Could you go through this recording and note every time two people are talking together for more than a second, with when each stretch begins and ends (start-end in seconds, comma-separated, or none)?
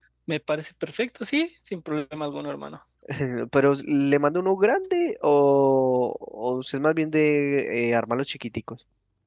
none